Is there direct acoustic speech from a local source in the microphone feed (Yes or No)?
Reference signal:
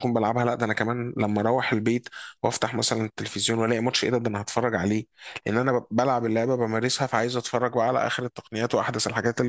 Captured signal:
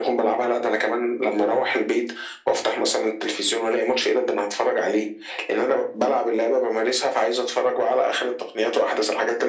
No